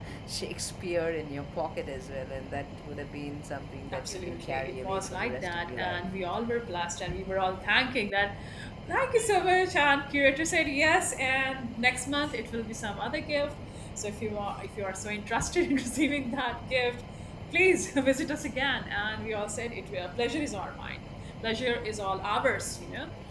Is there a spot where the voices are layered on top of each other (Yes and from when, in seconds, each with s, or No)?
Yes, from 3.9 s